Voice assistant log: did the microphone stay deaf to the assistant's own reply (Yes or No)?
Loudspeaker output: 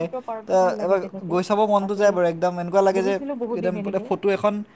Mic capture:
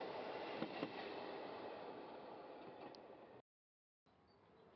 Yes